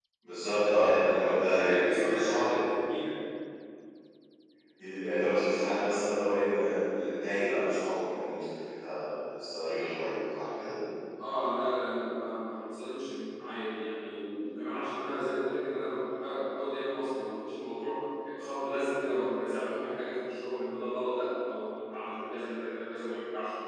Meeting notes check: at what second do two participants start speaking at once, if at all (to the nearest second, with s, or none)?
1 s